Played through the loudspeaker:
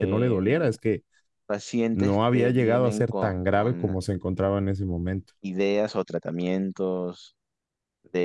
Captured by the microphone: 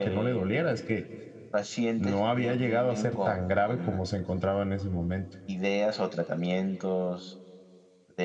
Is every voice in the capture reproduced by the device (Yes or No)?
Yes